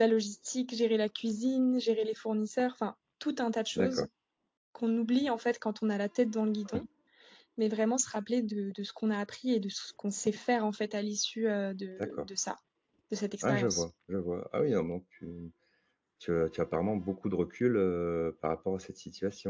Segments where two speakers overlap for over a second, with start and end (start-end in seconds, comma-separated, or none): none